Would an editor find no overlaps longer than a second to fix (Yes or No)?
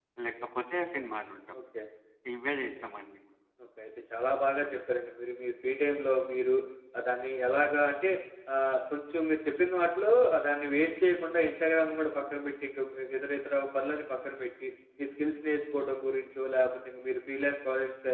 Yes